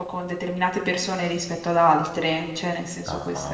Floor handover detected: Yes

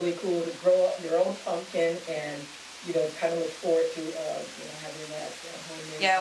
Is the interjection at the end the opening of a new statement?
Yes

